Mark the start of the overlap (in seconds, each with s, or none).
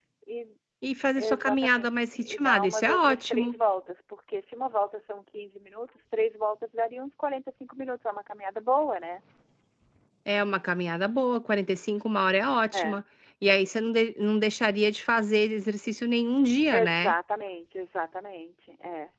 1.2 s